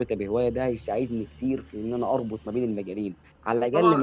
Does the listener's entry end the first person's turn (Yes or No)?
Yes